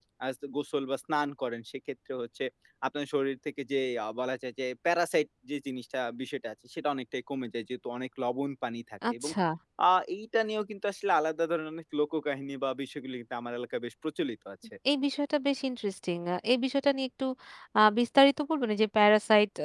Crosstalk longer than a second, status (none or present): none